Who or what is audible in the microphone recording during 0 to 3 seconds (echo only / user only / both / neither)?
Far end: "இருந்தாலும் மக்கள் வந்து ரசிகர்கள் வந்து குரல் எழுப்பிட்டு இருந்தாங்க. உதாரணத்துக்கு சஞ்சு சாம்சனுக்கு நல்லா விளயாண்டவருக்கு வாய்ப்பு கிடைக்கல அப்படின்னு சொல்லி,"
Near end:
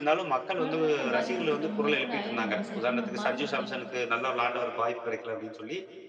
both